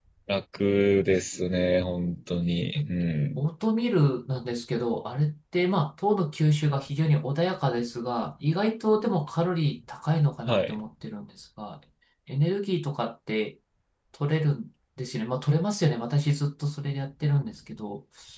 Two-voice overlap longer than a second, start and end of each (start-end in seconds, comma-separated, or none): none